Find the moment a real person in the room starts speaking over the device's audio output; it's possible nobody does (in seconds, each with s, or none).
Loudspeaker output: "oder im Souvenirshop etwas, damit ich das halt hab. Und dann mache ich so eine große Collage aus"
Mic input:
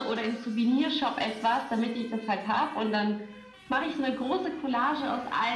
none